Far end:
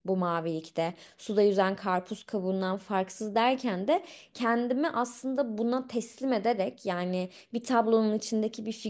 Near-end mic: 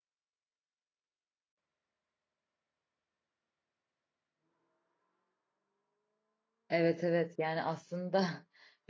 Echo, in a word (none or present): none